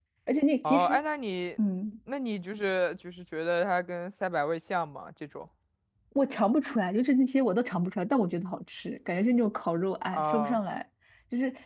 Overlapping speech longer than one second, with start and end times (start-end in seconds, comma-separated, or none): none